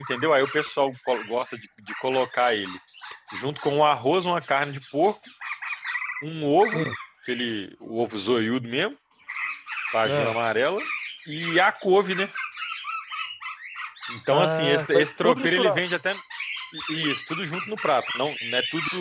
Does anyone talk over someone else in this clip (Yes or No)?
Yes